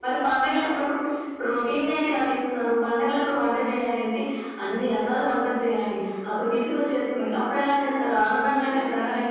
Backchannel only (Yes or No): No